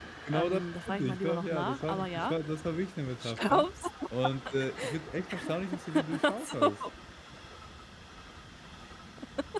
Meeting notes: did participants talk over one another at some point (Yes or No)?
Yes